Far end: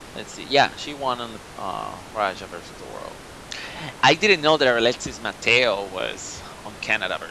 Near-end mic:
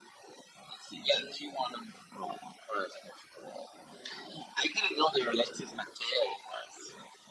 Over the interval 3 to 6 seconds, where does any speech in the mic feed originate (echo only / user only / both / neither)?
echo only